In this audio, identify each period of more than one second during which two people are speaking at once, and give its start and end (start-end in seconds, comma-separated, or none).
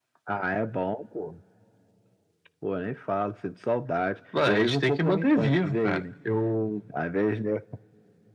4.5-6.0